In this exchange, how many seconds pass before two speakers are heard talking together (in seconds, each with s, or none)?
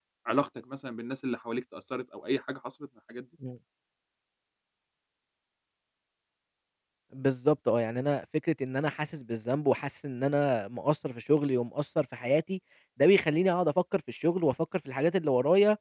none